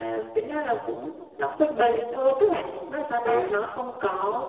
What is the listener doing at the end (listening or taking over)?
listening